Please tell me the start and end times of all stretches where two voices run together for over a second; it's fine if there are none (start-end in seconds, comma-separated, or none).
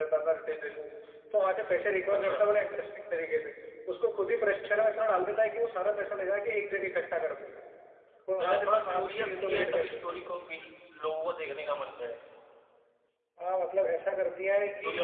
8.4-10.0